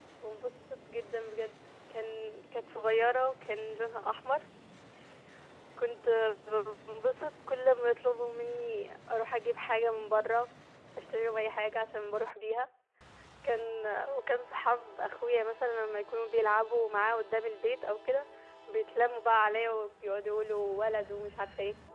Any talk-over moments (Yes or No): No